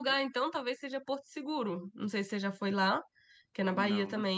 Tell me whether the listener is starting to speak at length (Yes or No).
No